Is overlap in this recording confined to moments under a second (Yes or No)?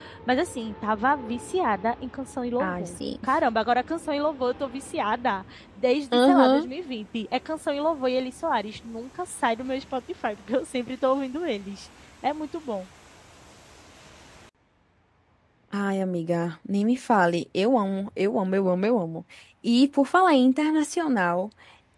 Yes